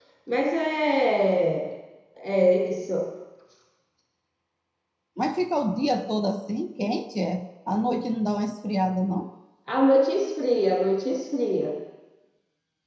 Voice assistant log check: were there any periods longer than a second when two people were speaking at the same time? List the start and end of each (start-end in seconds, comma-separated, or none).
none